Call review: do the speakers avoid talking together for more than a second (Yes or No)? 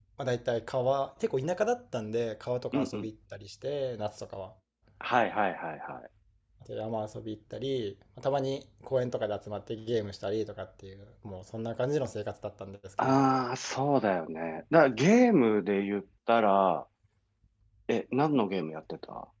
Yes